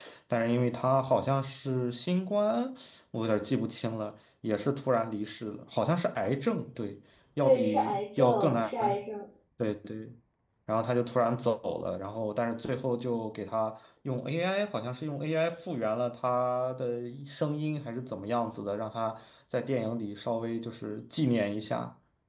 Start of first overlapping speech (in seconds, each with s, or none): 7.4 s